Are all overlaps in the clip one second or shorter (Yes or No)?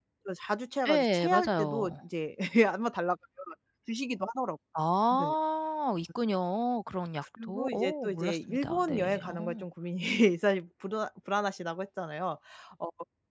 No